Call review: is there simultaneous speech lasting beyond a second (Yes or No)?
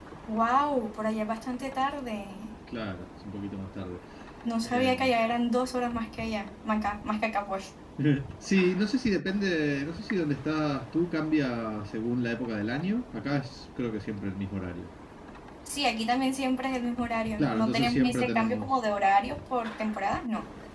Yes